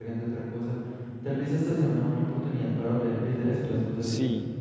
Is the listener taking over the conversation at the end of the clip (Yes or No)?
Yes